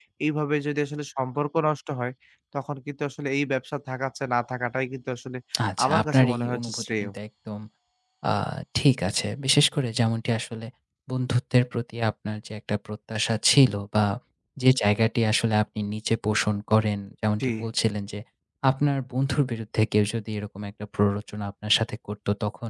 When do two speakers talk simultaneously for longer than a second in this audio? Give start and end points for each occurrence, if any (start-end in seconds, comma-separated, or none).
5.8-7.1